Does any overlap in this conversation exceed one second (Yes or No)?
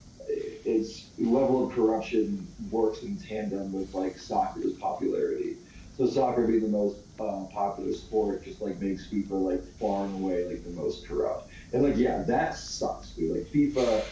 No